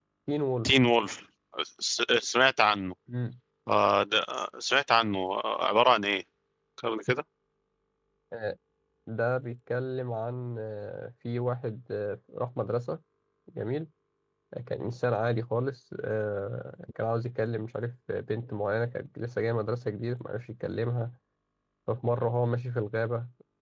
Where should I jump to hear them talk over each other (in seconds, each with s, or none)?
none